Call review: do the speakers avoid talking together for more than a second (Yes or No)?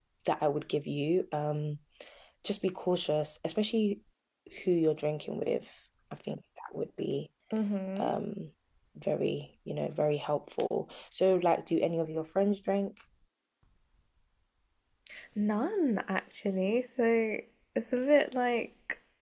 Yes